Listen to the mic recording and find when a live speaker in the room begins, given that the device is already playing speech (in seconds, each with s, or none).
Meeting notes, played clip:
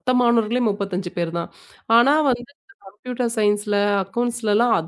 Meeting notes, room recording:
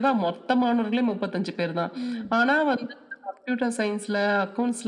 2.0 s